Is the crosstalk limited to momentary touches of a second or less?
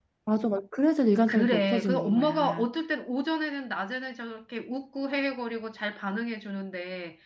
No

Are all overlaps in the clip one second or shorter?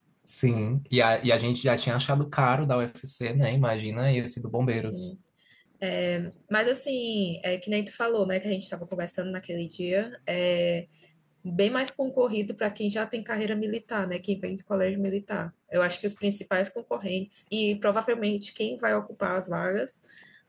Yes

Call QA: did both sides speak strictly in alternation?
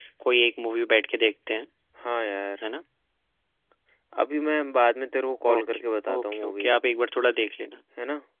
No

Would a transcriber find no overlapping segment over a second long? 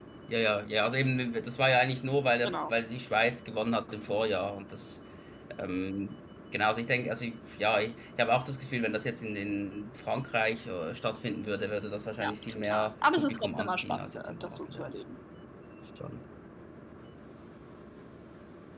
No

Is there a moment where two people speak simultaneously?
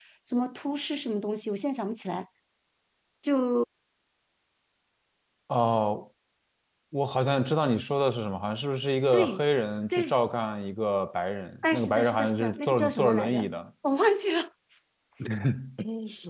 Yes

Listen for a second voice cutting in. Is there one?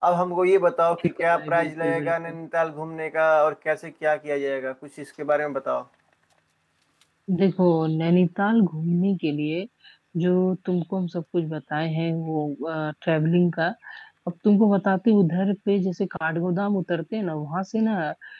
Yes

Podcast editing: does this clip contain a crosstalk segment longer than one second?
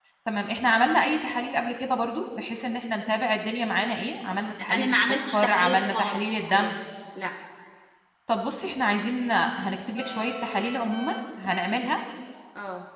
Yes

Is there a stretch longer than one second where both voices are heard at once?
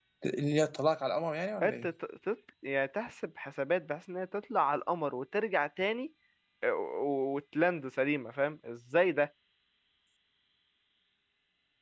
No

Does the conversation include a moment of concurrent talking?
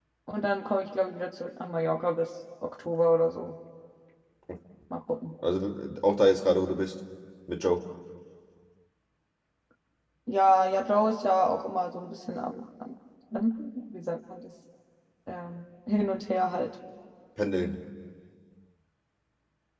No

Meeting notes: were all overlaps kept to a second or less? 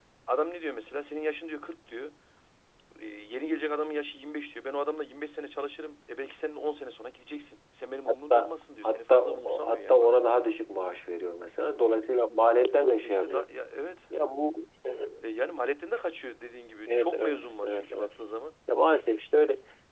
No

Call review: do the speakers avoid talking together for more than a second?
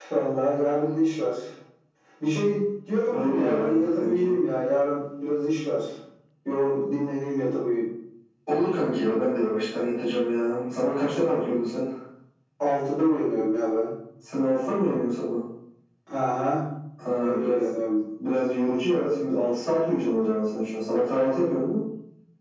No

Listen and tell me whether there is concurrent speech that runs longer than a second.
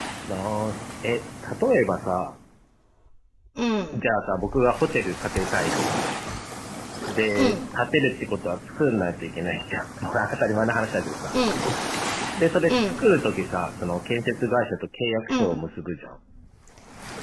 No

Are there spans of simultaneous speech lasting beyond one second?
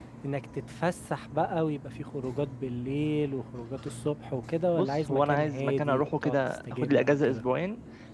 Yes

